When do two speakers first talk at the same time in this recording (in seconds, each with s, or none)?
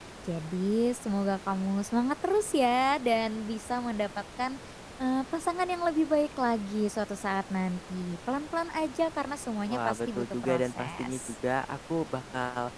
9.7 s